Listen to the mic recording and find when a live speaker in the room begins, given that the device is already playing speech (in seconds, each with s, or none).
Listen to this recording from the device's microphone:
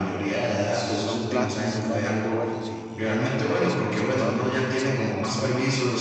0.5 s